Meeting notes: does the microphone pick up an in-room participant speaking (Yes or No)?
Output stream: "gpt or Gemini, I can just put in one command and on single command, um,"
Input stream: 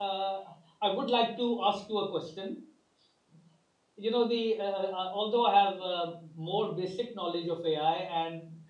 Yes